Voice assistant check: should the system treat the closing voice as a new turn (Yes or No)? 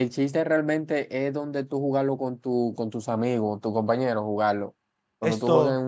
No